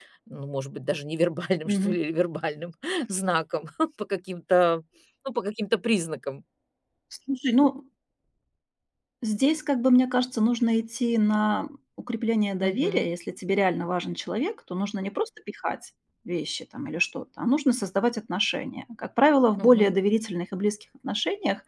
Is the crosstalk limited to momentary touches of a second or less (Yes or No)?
Yes